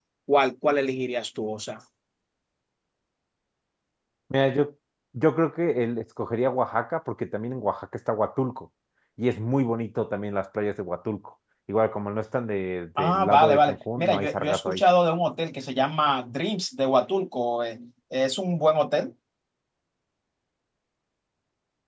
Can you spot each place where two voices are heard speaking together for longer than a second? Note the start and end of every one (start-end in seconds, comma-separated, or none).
13.0-14.8